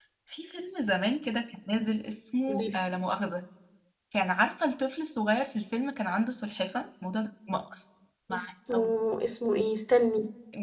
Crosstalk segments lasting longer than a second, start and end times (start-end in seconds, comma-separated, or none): none